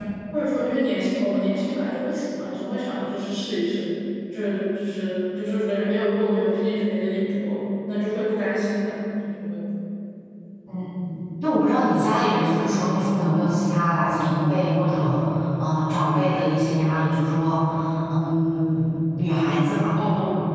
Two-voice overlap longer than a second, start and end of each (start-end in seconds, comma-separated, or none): none